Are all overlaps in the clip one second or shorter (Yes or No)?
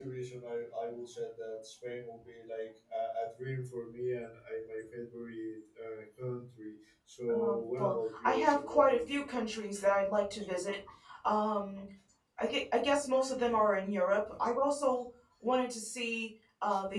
No